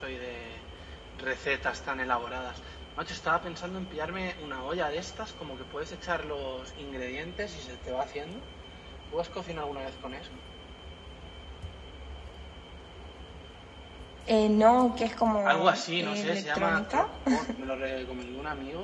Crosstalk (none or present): present